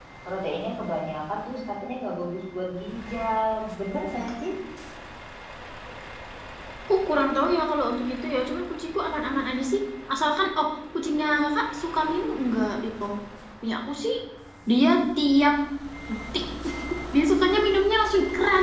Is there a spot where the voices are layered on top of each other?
No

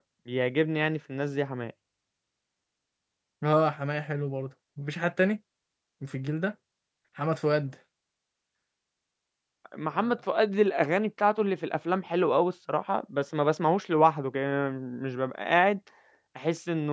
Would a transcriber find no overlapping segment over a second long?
Yes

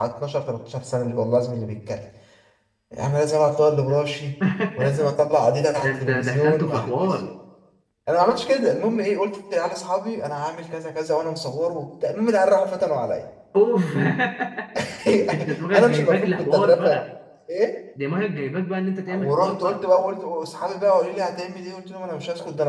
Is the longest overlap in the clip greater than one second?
Yes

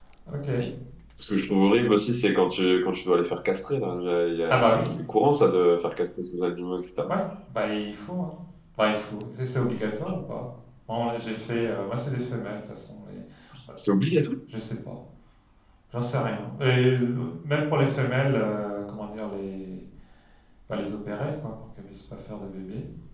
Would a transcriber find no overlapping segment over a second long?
Yes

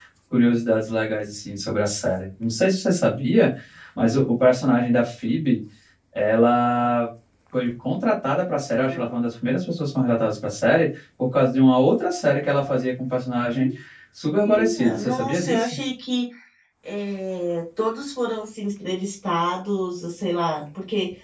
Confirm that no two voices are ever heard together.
No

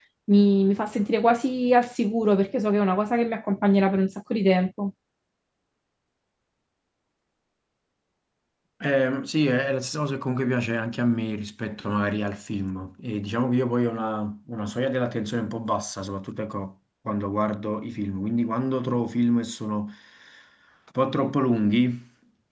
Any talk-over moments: No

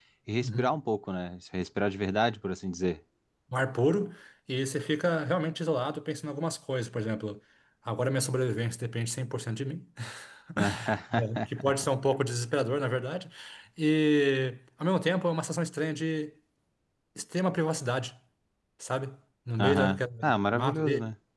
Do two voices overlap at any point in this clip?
Yes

